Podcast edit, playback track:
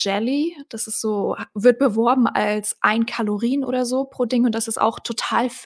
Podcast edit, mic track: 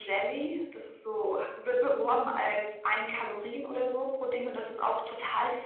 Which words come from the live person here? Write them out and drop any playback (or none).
none